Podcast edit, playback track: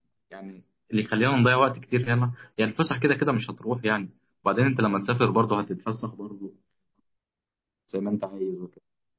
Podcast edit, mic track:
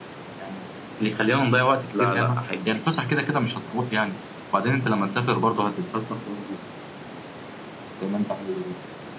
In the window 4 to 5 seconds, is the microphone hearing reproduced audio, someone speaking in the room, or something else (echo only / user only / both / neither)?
echo only